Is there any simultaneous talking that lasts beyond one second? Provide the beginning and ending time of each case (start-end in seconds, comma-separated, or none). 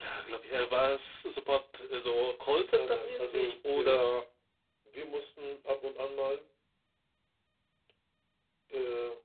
2.7-4.2